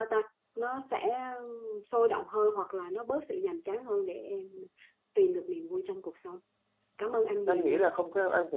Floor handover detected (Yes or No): Yes